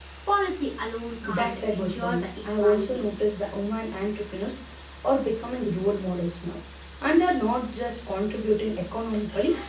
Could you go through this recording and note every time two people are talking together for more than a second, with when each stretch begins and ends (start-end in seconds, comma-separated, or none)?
1.3-3.0